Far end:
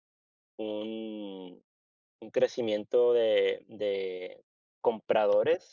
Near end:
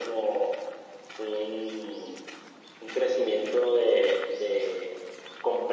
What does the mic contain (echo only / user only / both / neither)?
echo only